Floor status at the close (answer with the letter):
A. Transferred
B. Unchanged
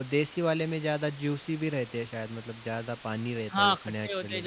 A